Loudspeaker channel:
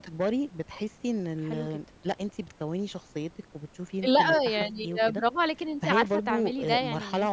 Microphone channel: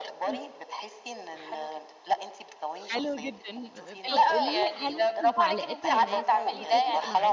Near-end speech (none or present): present